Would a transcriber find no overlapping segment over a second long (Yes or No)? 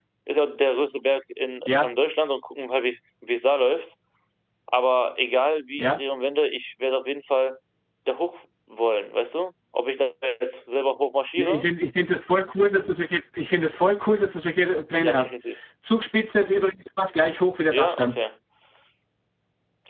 Yes